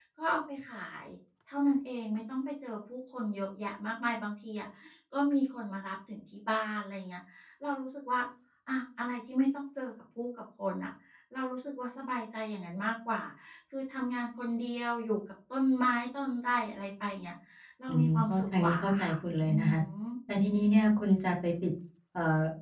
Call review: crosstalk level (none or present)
present